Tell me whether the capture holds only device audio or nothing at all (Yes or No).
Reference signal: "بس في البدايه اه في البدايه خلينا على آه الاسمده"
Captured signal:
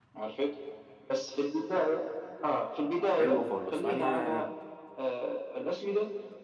No